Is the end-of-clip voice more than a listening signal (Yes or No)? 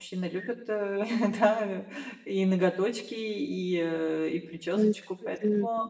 Yes